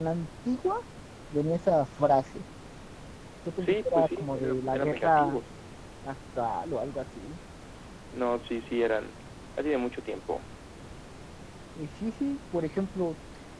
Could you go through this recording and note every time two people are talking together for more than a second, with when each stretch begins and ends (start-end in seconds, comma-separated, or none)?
3.6-5.4